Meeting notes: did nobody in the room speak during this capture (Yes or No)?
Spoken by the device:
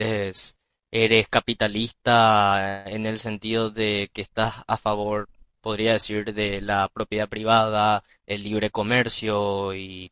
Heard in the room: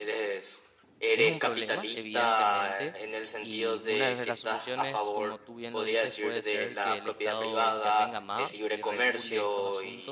No